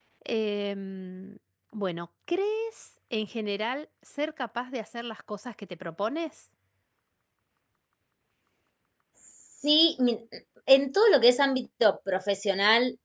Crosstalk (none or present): none